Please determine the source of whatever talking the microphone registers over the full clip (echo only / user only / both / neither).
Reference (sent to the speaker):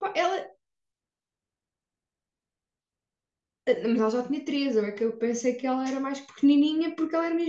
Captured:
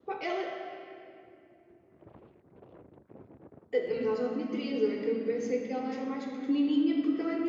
echo only